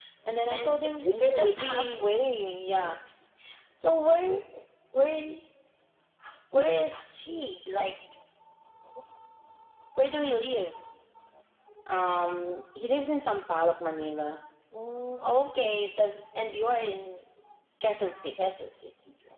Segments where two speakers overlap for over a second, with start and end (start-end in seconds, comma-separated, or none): 0.5-2.0